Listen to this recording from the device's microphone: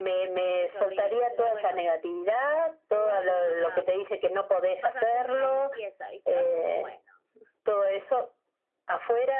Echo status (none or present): present